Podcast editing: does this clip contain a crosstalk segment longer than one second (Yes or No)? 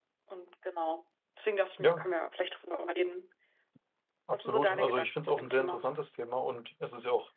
Yes